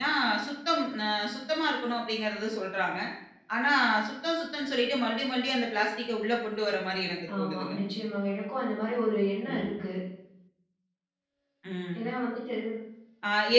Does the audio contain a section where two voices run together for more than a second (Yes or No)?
No